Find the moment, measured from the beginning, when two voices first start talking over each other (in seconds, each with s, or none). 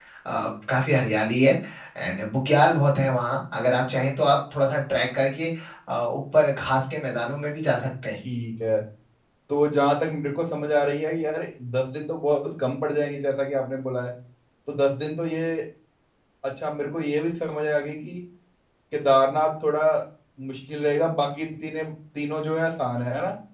none